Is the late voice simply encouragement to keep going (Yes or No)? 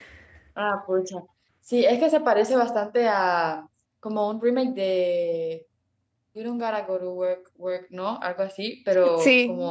Yes